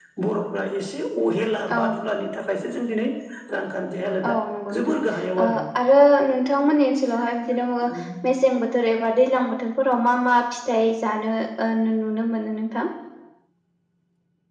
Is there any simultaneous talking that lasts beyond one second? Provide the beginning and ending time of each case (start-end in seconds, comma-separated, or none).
none